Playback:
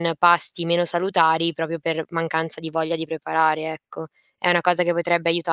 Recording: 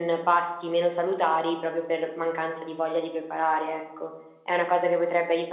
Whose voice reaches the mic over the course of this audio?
echo only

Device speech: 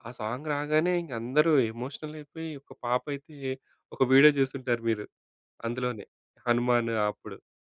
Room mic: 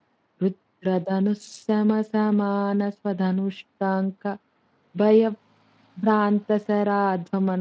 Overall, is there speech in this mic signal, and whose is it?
user only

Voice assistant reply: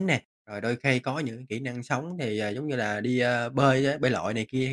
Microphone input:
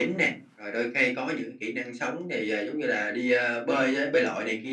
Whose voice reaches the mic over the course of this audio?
echo only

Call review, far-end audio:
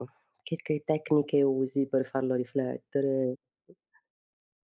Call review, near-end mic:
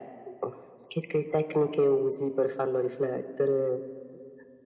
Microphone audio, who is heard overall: echo only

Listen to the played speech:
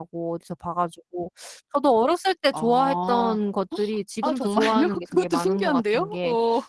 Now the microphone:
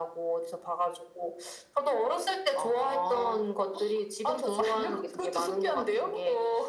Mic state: echo only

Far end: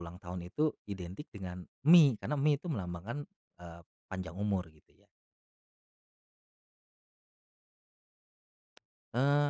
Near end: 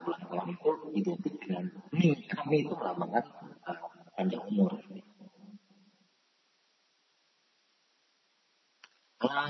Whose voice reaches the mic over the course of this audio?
echo only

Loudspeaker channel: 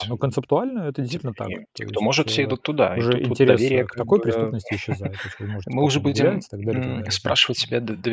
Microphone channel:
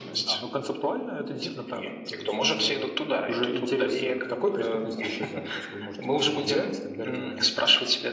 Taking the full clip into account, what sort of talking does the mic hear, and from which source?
echo only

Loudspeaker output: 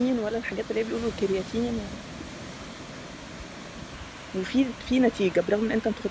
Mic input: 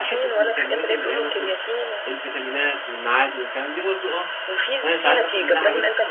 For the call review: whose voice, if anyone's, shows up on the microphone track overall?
both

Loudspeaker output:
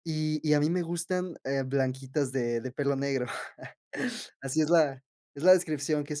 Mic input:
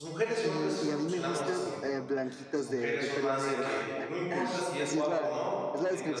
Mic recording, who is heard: both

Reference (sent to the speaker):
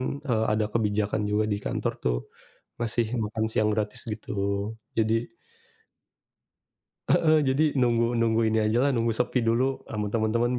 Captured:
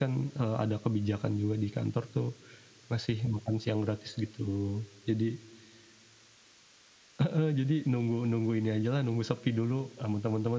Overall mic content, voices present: echo only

